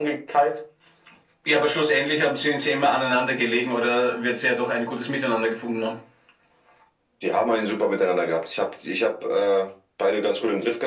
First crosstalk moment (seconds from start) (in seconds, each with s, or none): none